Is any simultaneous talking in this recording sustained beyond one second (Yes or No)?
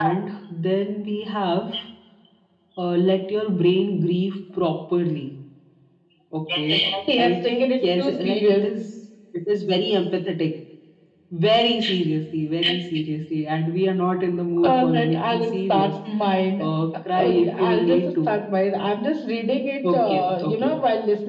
Yes